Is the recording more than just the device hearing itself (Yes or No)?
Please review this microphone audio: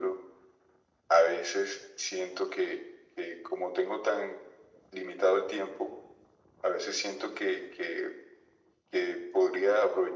No